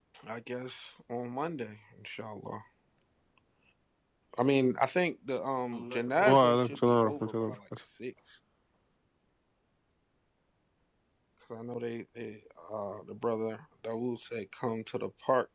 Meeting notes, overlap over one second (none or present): present